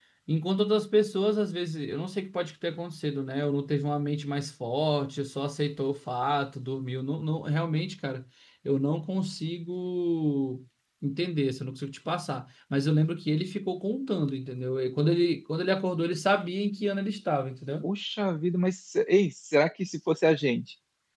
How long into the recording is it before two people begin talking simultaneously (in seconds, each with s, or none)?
none